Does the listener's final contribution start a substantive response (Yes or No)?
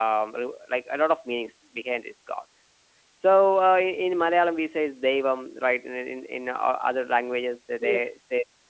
No